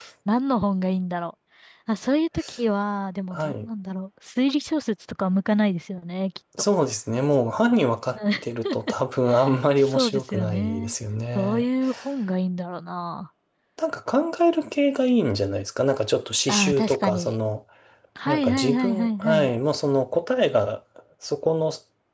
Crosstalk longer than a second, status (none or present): present